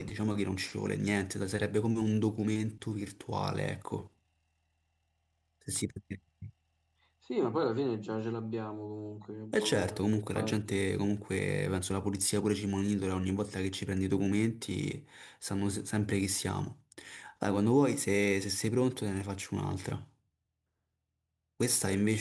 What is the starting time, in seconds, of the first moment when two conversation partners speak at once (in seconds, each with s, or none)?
9.5 s